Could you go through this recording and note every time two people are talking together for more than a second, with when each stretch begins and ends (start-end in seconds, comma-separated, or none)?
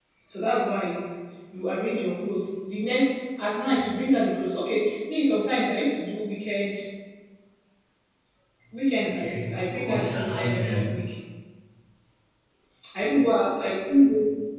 9.1-10.8